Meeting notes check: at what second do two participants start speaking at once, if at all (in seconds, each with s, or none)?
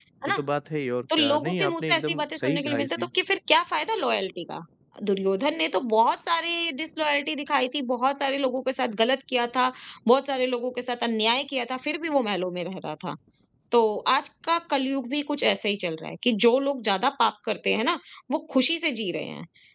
1.2 s